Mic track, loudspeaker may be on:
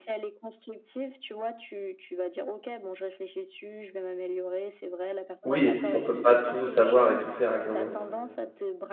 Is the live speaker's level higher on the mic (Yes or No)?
Yes